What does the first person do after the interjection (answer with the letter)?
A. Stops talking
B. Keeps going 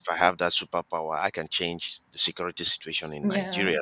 B